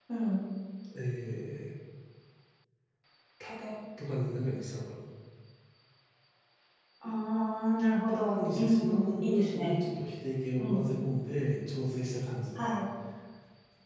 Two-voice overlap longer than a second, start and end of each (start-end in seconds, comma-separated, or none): 8.1-9.8